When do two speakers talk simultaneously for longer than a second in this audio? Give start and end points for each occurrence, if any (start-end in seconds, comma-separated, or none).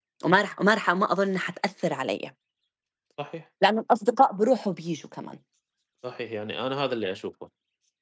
none